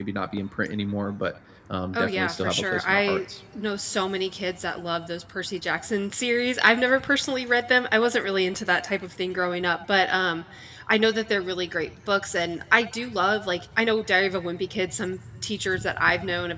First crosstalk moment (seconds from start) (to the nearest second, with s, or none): 2 s